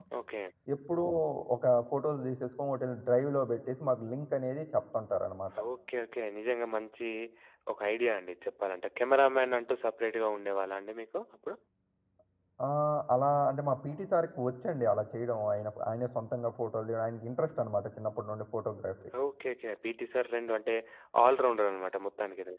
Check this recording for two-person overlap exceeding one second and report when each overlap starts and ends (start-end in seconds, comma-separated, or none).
none